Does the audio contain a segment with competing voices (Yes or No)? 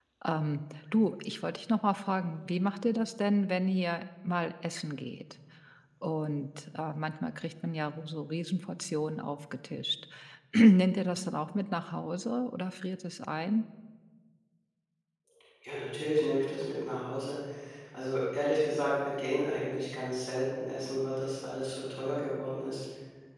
No